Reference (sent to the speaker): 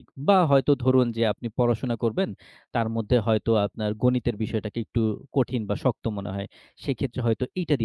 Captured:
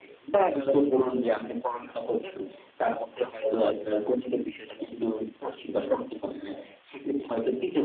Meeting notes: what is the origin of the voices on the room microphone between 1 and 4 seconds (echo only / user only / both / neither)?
echo only